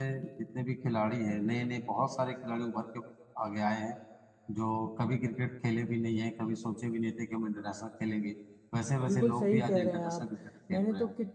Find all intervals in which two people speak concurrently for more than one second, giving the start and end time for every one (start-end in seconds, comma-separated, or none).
9.0-10.3